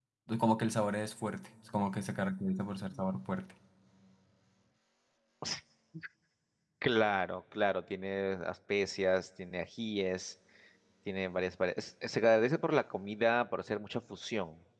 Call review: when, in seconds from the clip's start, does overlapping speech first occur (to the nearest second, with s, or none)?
none